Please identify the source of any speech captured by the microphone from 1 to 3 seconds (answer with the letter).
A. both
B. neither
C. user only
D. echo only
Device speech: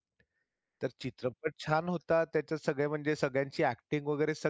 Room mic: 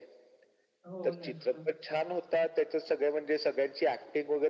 A